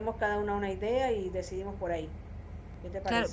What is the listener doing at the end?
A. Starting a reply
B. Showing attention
A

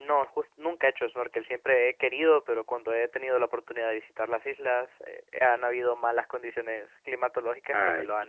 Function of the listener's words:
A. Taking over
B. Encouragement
A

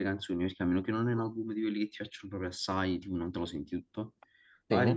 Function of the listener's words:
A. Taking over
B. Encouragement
B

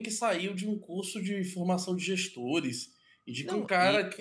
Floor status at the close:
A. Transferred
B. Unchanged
A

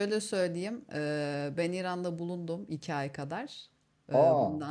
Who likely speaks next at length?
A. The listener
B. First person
B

